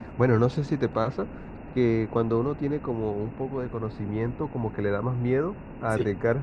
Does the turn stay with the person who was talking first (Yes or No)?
Yes